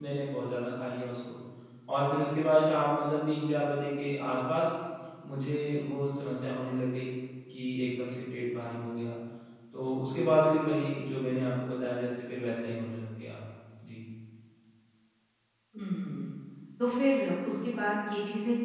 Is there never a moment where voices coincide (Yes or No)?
Yes